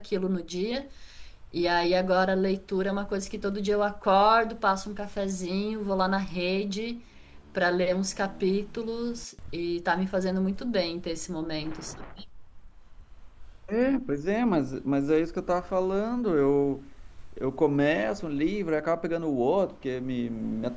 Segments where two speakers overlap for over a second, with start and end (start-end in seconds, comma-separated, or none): none